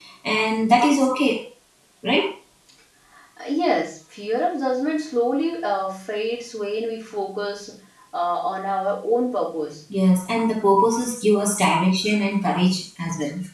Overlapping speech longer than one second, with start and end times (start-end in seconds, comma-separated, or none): none